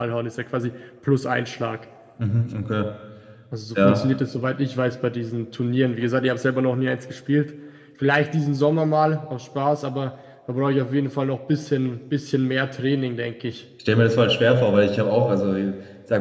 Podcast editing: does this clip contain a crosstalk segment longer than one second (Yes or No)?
No